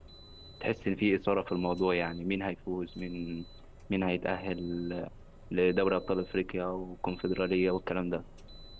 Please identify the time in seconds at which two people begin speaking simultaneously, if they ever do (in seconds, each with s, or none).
none